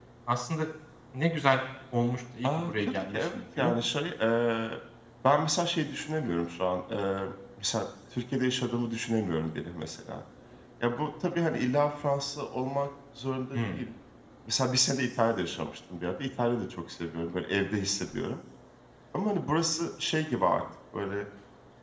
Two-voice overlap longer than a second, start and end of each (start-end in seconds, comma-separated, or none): 2.4-3.8